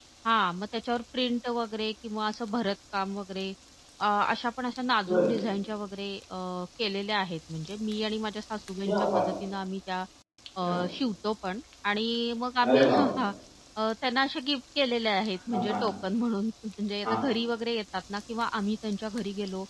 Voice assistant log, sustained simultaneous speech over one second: none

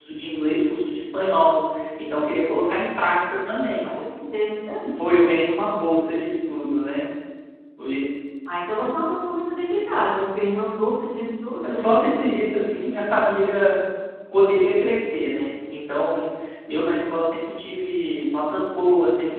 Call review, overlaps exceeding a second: none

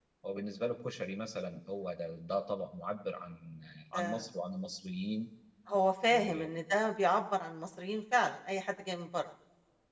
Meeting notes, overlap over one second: none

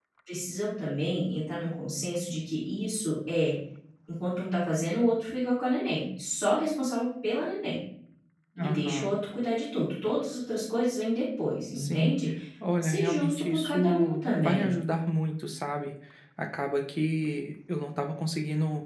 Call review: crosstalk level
present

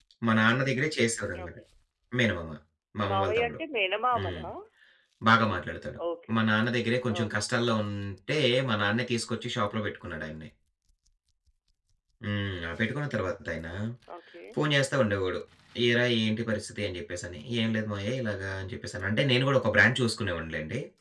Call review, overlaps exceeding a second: none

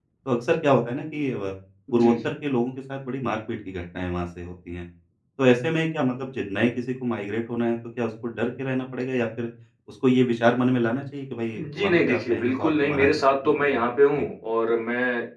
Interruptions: present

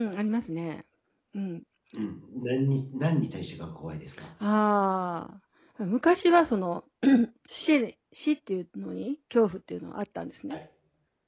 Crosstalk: none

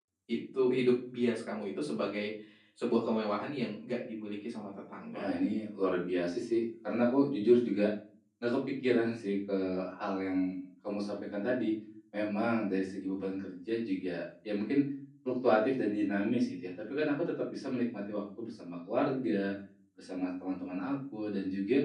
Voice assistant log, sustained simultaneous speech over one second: none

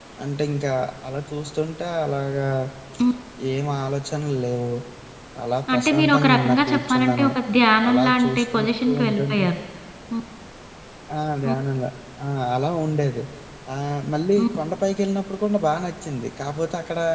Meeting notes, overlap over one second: present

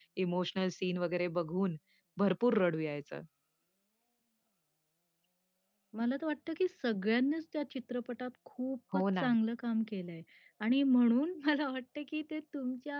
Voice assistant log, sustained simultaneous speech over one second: none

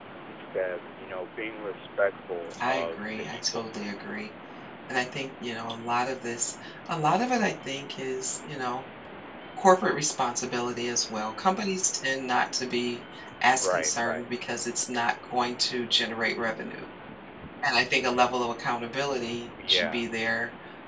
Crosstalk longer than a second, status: present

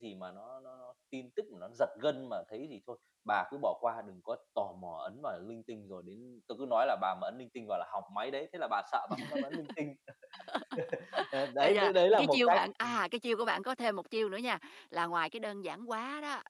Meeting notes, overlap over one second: present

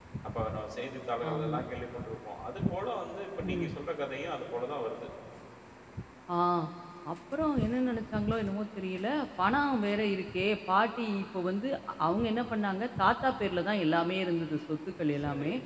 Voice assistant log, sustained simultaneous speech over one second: none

